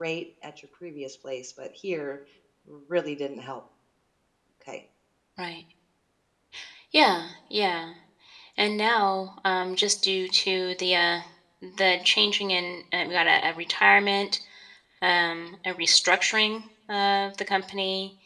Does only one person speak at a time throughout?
Yes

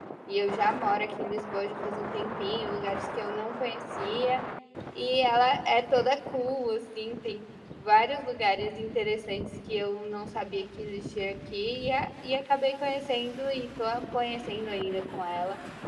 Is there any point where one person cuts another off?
No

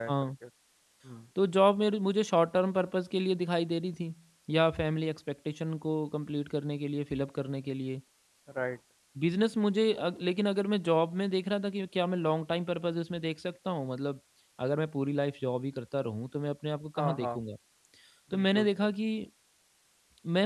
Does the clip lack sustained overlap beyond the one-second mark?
Yes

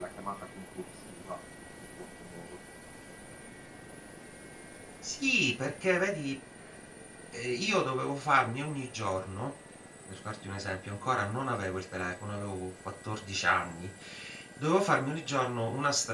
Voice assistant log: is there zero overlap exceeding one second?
Yes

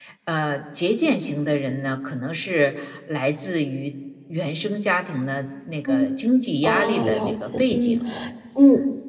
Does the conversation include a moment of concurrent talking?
Yes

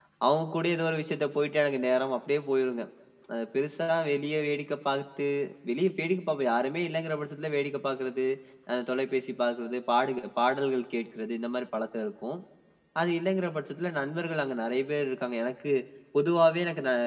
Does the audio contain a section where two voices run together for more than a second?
No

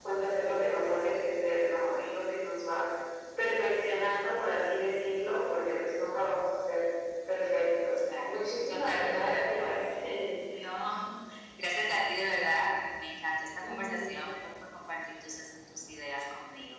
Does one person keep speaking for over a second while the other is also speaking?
Yes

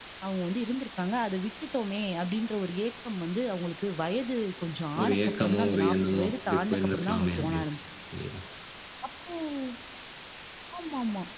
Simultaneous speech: Yes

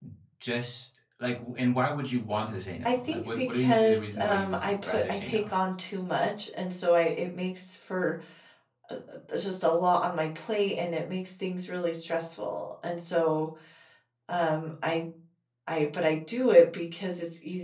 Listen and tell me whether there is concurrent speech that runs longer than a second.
Yes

